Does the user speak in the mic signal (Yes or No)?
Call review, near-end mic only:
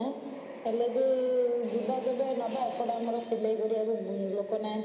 No